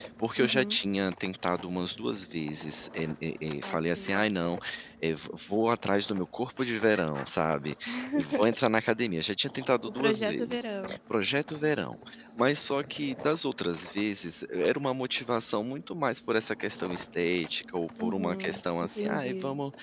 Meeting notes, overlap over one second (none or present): present